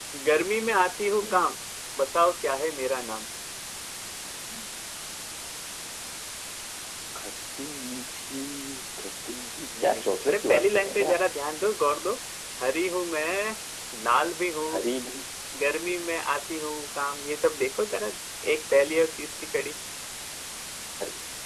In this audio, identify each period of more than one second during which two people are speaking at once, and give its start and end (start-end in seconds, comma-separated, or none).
9.8-11.2